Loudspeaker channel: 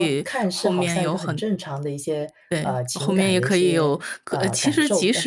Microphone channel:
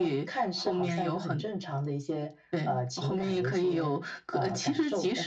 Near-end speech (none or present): none